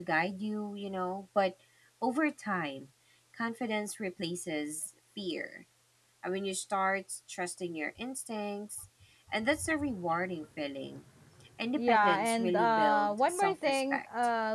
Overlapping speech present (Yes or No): Yes